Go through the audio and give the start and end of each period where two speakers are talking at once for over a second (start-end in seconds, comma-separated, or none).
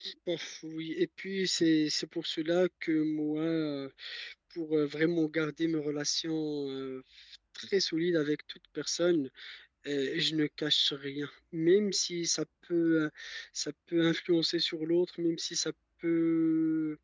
none